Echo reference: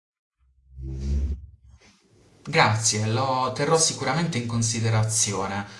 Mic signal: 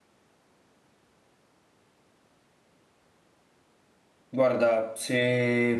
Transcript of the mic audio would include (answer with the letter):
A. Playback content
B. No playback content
B